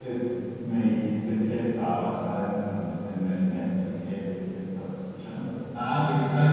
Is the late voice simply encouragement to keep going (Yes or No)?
No